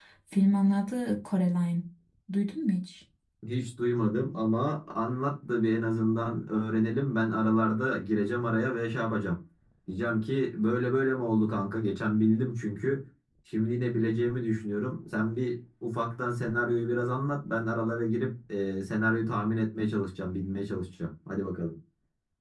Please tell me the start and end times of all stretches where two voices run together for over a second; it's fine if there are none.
none

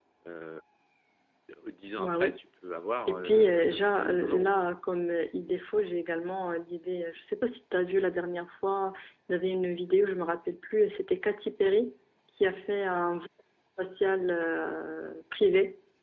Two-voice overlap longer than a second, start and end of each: 3.1-4.5

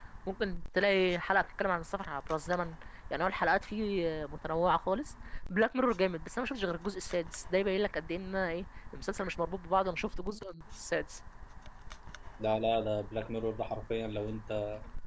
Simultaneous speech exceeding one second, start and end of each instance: none

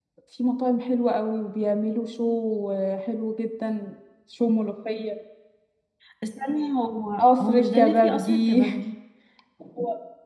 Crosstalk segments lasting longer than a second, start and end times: 7.2-8.6

